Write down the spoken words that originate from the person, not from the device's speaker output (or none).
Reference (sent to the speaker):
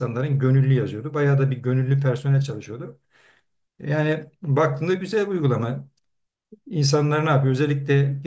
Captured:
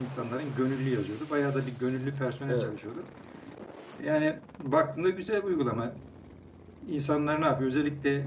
evet.